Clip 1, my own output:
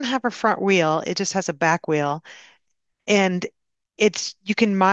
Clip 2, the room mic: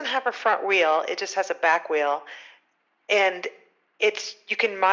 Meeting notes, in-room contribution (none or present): none